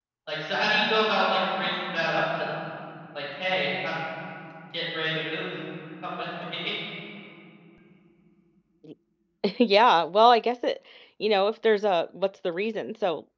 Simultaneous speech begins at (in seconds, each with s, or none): none